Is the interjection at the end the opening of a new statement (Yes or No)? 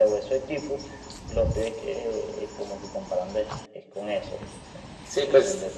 Yes